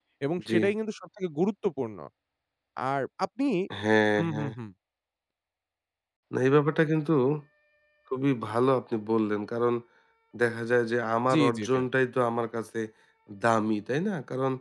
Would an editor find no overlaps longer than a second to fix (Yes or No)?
Yes